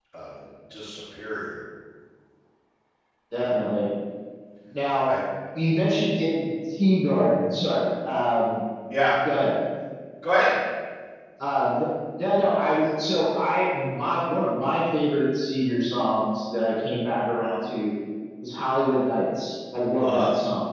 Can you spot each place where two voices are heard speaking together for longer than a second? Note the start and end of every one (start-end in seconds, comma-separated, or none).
none